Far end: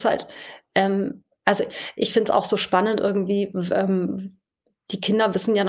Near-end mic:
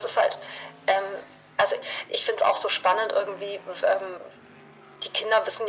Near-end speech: none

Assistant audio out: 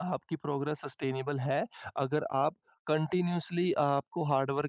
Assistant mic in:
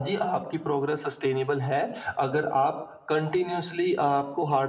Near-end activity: none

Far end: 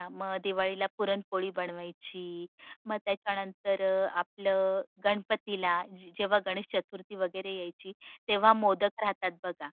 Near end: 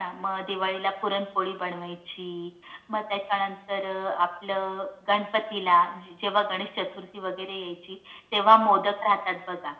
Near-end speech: none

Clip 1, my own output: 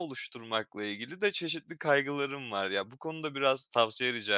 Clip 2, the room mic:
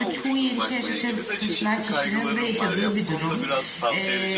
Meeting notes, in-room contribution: present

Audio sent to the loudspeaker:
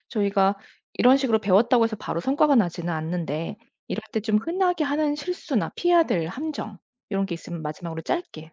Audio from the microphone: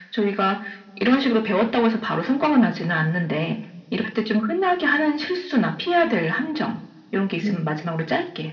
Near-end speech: present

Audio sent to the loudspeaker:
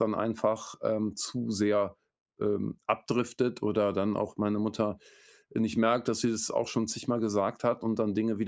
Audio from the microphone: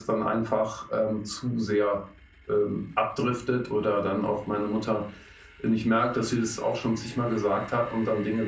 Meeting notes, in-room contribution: none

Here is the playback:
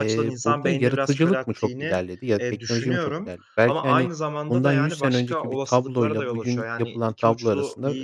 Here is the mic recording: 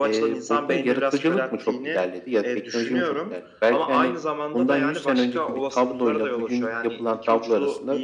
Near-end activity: none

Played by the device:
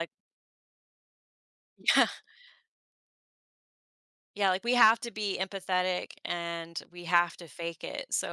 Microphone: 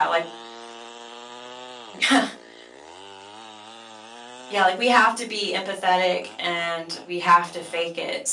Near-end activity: none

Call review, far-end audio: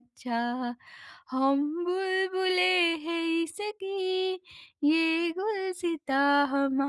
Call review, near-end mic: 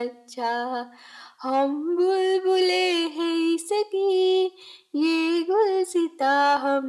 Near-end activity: none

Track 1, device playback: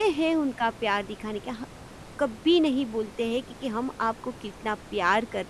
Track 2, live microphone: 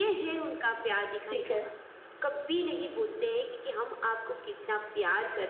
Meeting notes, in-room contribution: present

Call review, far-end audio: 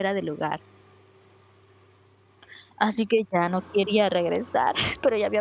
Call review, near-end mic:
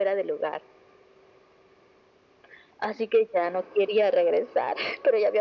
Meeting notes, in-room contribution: none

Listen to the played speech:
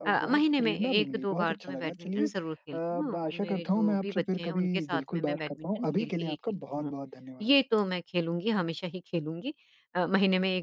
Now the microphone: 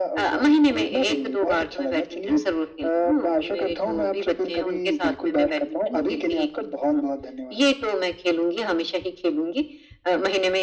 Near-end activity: none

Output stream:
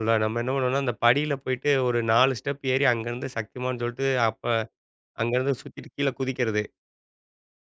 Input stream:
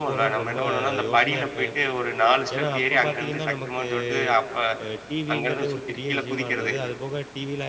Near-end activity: present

